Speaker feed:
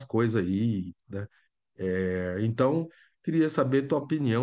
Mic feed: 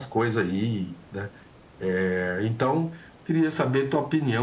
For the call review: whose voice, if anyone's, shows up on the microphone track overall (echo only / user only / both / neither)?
echo only